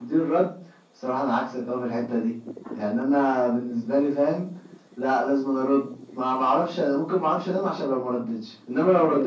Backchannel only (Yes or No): No